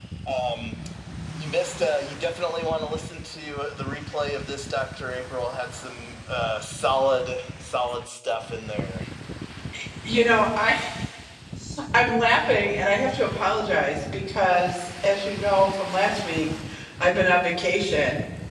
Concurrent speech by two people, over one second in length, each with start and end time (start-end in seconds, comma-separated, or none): none